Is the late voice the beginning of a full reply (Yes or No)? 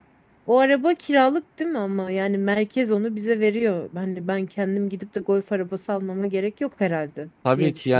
Yes